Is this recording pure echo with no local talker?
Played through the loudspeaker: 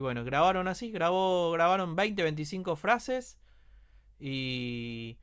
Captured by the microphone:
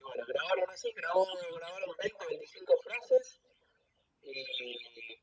Yes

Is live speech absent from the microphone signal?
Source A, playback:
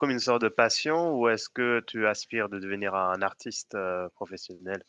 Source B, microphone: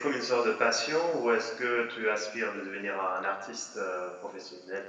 Yes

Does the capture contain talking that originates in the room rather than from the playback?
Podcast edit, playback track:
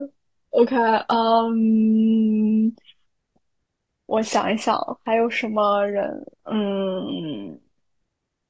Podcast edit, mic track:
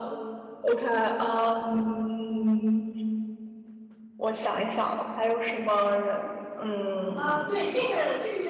Yes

